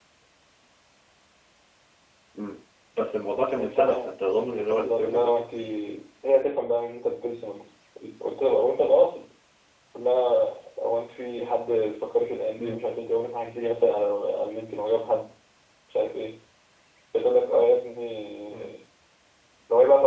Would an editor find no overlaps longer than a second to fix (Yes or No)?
No